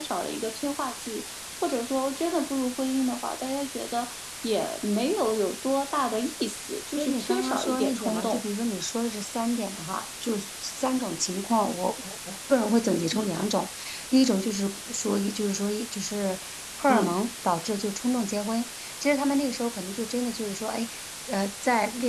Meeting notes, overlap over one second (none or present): present